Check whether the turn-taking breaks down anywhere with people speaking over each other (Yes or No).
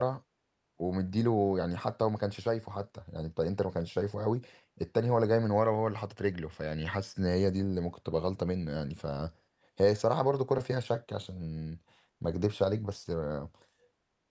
No